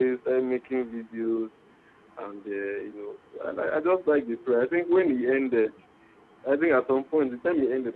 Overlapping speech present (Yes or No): No